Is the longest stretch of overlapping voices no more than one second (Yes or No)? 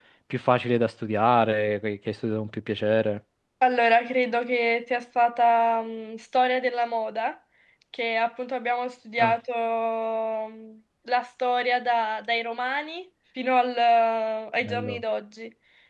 Yes